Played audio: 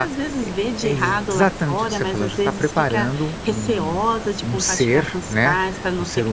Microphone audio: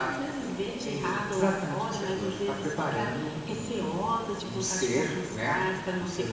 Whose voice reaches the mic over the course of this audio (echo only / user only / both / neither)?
echo only